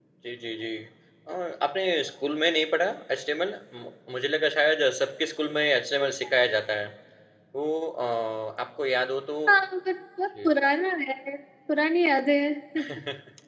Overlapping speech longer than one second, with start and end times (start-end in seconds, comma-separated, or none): none